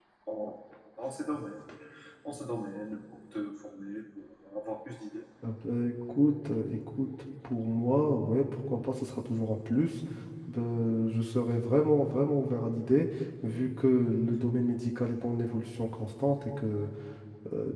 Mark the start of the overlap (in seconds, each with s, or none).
none